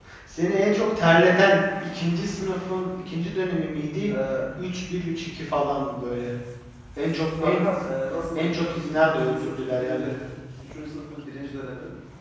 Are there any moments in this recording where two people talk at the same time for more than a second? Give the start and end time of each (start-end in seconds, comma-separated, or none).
8.3-10.1